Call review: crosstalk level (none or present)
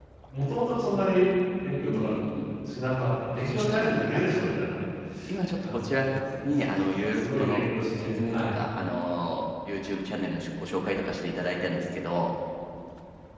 present